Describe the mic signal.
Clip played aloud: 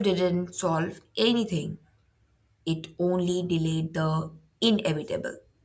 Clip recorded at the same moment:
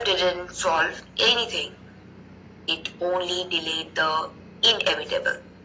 echo only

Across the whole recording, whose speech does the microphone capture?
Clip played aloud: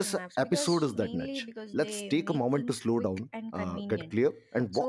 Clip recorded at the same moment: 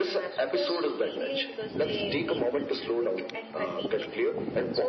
echo only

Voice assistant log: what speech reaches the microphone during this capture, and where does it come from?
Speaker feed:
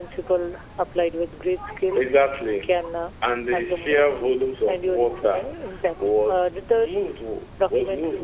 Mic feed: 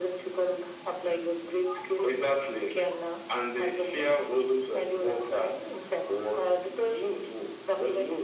echo only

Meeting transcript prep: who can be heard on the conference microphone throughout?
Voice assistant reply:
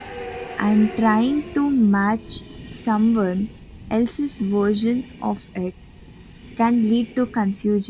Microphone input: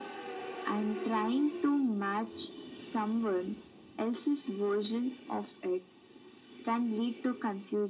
echo only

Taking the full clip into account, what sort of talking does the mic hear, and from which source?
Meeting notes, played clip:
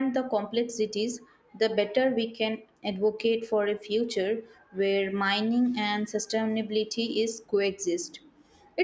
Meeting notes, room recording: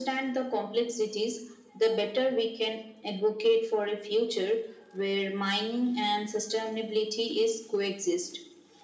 echo only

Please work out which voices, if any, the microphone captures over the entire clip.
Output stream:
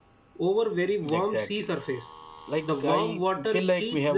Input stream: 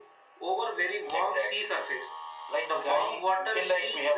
echo only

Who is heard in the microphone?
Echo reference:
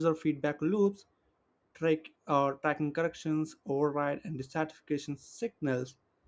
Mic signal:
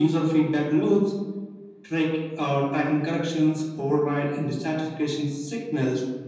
echo only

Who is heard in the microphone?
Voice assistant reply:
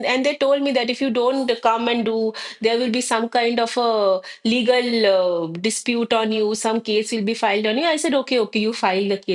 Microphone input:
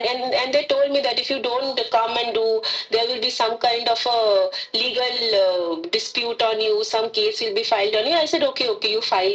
echo only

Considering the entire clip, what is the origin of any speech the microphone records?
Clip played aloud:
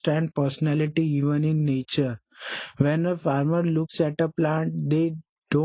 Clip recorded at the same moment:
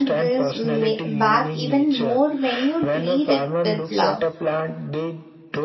both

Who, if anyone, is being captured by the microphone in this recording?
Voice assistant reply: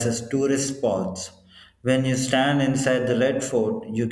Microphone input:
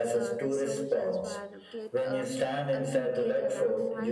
both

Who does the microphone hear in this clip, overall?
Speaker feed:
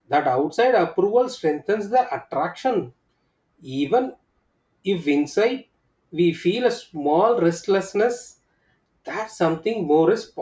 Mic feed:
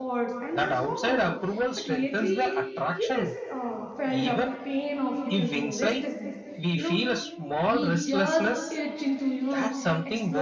both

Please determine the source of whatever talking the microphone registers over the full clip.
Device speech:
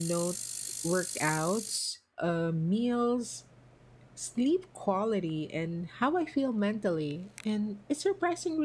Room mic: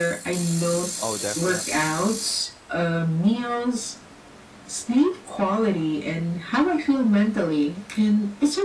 both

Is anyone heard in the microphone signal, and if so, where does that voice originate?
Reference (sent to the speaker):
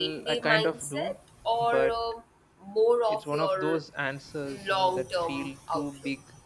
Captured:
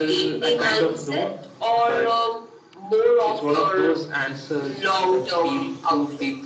echo only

